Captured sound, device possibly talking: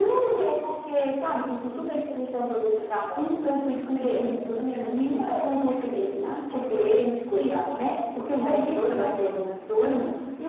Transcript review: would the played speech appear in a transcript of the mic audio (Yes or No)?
Yes